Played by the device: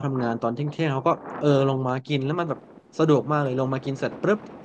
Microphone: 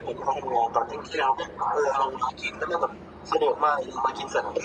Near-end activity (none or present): none